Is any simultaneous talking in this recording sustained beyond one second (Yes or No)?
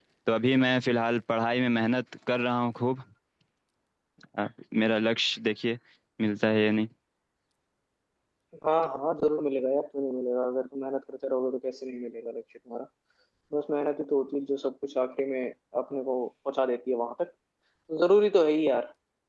No